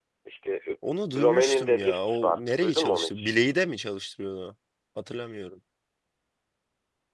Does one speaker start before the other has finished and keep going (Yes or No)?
Yes